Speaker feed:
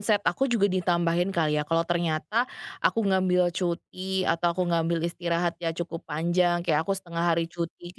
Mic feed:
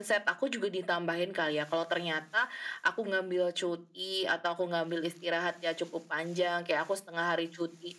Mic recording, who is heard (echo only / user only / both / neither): echo only